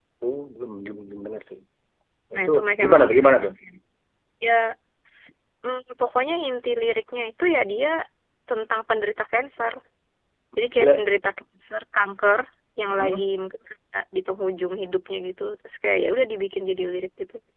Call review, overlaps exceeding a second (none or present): present